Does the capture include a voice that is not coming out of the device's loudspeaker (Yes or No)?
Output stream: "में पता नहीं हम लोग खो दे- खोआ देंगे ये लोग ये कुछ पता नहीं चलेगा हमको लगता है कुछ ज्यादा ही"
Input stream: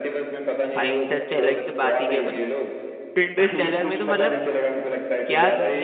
Yes